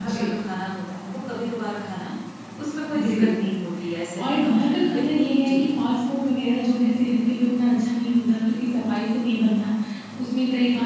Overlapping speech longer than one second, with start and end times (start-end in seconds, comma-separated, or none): 4.2-5.7